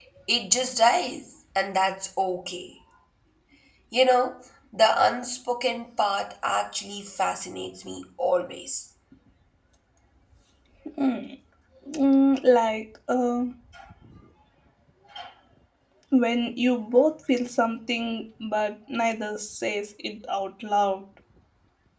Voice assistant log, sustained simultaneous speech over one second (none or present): none